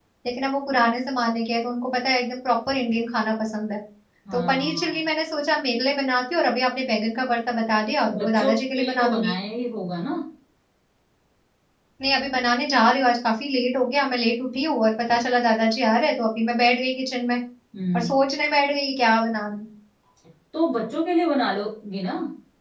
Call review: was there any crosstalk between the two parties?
Yes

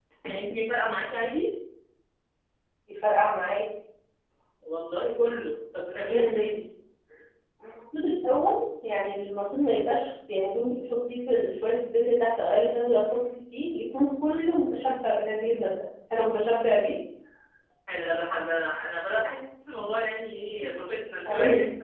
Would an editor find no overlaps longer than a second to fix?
Yes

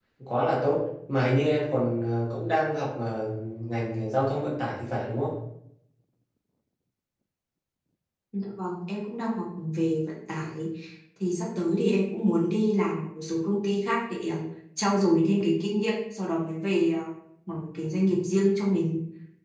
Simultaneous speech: No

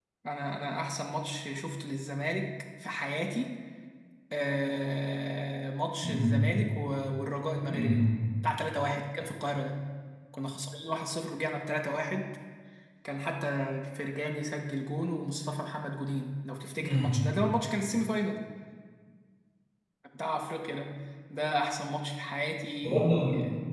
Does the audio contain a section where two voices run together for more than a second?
No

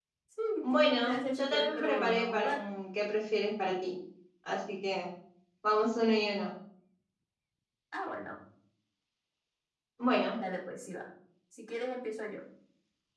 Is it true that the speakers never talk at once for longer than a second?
No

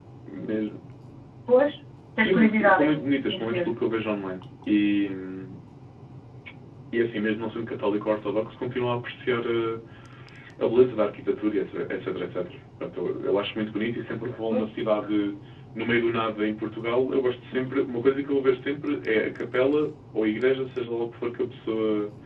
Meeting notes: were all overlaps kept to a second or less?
No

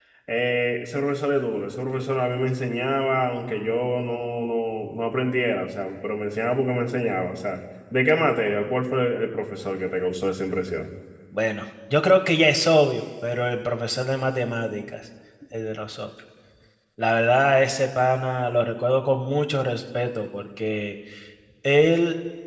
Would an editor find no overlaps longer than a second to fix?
Yes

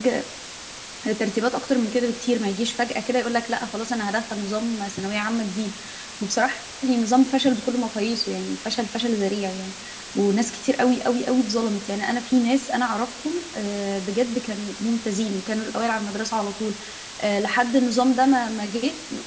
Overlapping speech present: No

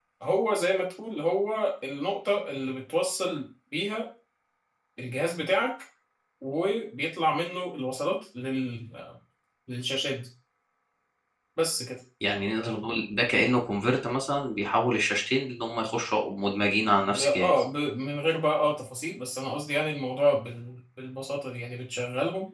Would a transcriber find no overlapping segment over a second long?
Yes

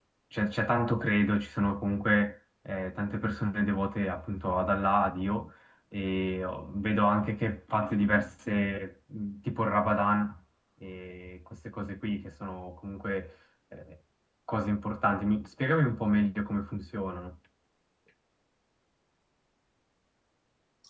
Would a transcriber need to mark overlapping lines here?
No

